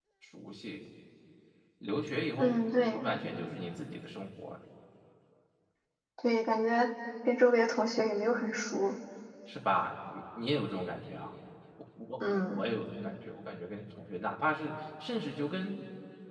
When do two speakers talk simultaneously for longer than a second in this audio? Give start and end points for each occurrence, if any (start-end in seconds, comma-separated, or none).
none